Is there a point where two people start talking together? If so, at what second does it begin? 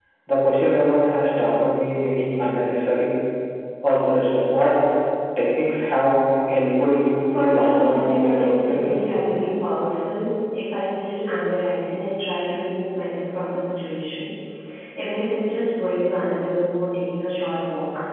7 s

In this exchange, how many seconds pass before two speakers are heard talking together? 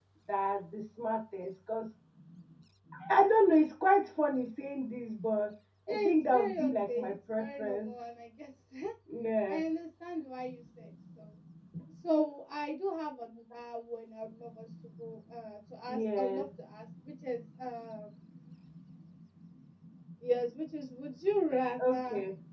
6 s

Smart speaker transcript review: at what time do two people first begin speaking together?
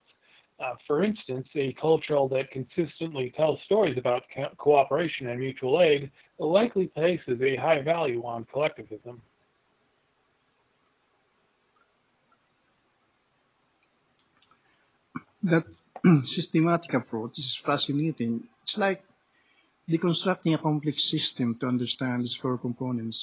none

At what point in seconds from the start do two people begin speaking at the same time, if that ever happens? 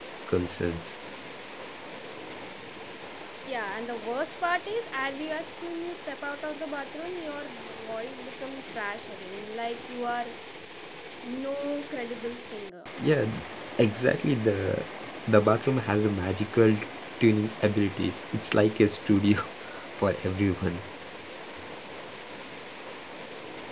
none

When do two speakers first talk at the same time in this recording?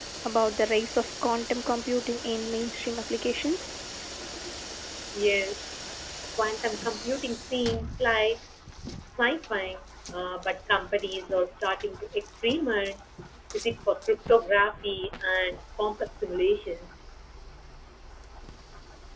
none

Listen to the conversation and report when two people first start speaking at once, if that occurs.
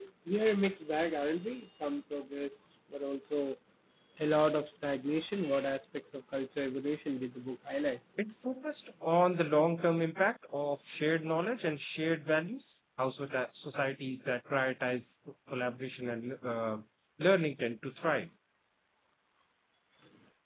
none

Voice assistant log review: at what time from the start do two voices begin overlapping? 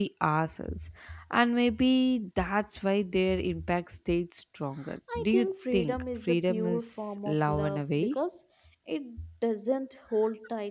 5 s

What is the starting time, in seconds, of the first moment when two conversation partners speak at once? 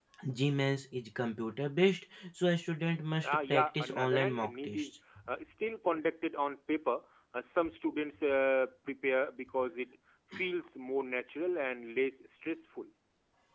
3 s

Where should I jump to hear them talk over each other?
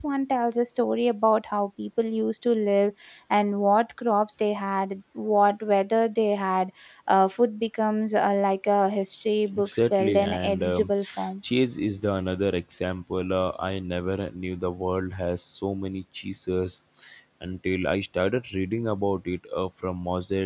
10 s

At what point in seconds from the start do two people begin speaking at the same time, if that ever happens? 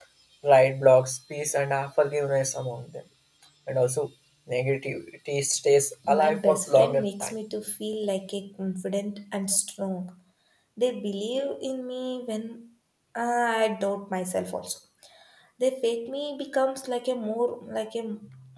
6 s

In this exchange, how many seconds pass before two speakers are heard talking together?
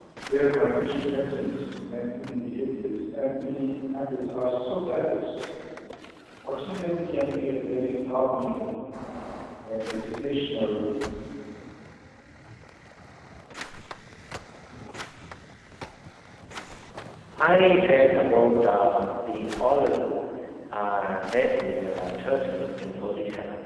none

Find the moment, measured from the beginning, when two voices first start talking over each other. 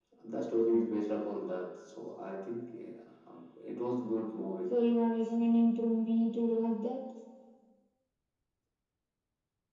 none

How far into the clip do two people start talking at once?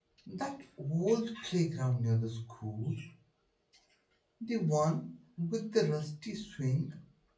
none

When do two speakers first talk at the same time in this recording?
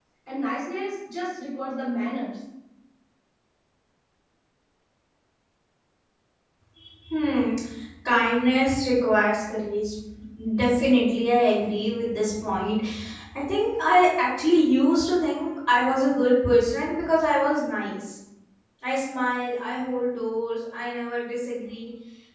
none

